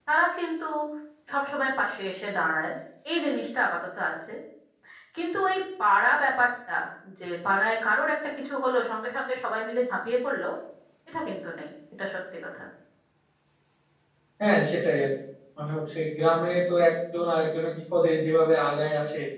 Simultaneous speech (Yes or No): No